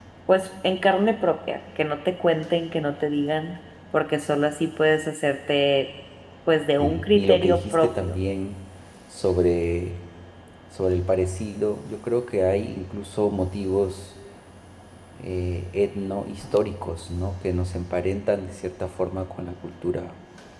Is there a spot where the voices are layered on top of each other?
Yes, from 6.8 s

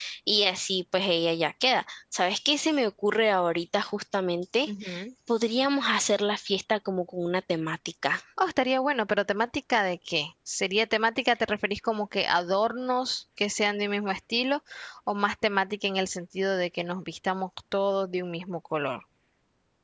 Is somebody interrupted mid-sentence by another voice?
No

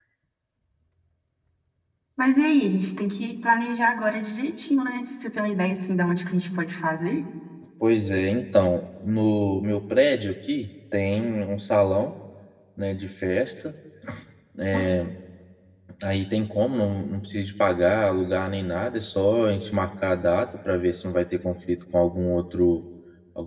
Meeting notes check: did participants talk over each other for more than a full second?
No

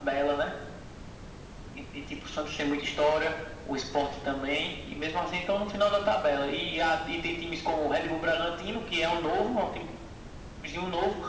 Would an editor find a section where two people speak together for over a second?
No

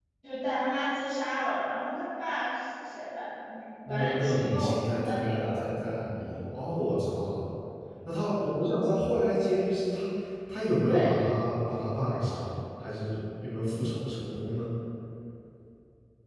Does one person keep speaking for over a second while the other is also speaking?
Yes, from 3.9 s

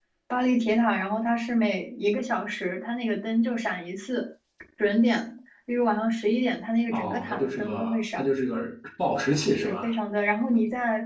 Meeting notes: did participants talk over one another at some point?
Yes, from 6.9 s

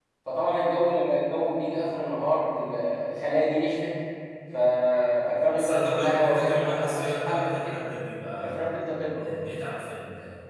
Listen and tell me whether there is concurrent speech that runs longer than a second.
Yes, from 5.5 s

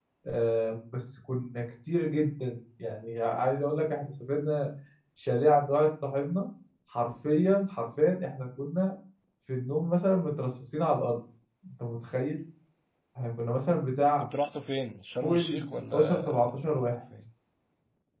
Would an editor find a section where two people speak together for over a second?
Yes, from 15.2 s

